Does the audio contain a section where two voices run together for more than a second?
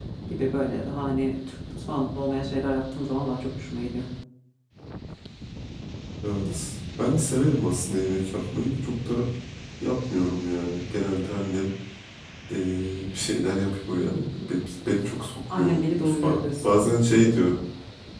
Yes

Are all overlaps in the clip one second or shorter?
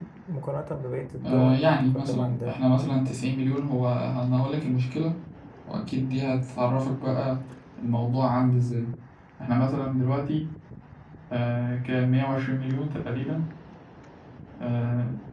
No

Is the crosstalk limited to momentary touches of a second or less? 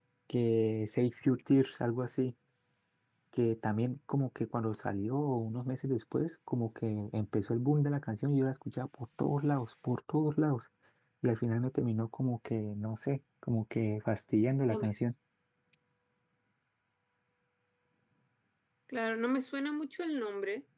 Yes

